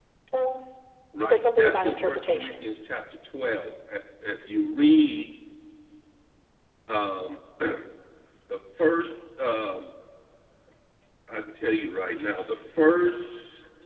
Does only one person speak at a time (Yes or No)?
No